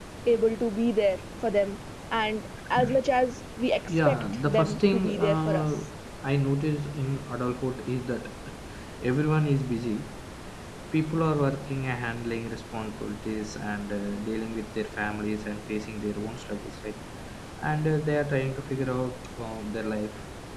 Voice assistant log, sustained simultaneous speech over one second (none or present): present